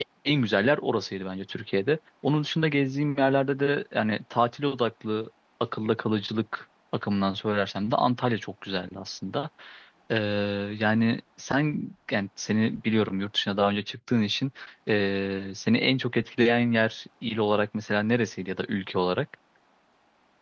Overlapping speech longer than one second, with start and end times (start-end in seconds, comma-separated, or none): none